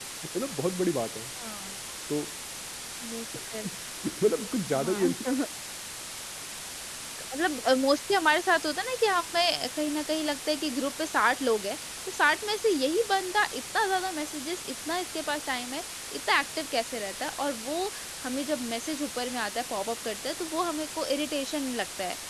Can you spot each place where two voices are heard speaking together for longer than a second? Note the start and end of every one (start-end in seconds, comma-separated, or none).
none